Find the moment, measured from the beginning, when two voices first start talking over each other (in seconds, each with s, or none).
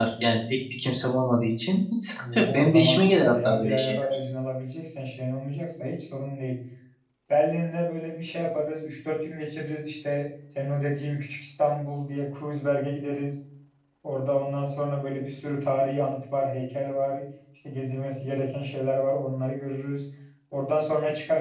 2.2 s